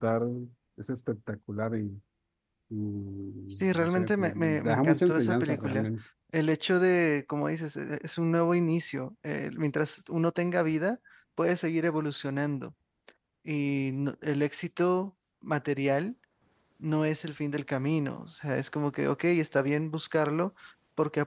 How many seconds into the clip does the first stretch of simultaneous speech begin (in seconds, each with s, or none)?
3.7 s